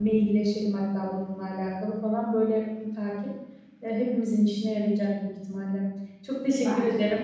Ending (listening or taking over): listening